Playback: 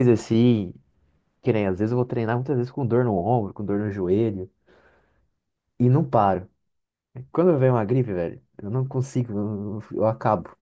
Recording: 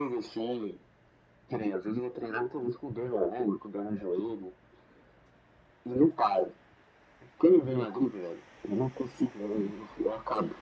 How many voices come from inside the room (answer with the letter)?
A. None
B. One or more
A